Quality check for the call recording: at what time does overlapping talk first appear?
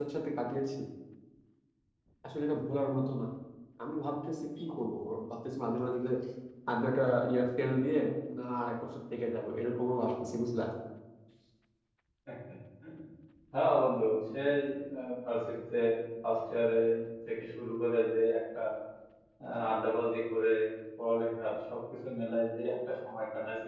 none

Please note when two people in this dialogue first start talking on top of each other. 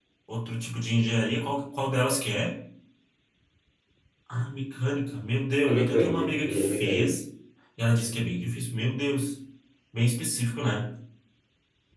5.7 s

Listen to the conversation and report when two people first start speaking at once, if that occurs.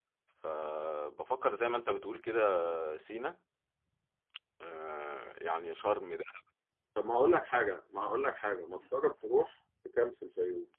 none

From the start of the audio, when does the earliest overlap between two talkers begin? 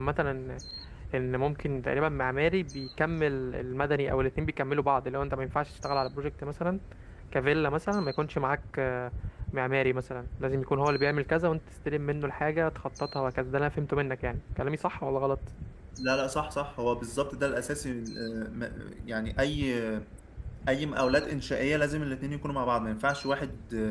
none

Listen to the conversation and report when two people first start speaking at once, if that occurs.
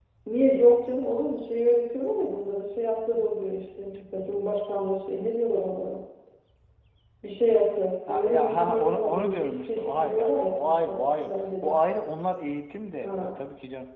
8.1 s

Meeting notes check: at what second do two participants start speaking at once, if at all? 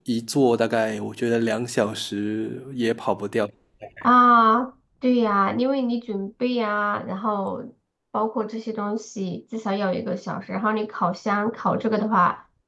none

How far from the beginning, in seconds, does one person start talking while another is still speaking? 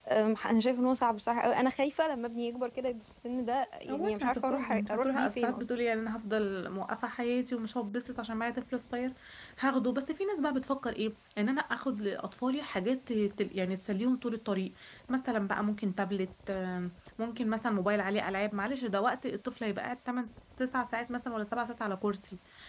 3.9 s

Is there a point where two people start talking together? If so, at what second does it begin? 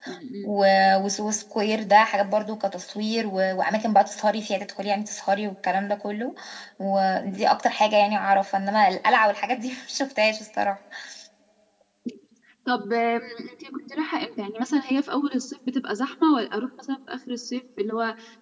none

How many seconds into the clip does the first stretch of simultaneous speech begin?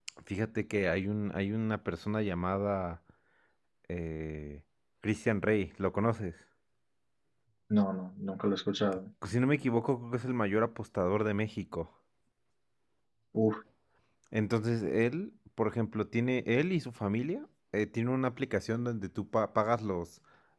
none

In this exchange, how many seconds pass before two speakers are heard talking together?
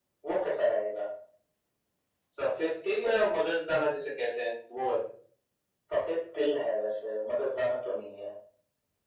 none

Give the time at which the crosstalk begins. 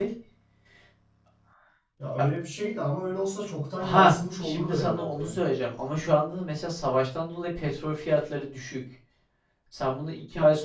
3.8 s

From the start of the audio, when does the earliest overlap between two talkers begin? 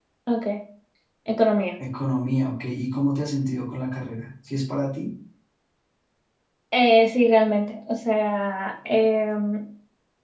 none

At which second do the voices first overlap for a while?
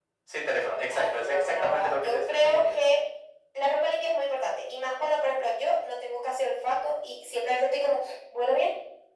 0.9 s

